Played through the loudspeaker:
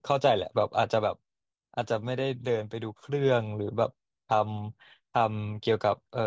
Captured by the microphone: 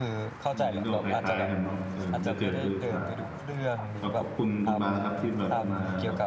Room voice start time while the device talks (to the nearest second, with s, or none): 1 s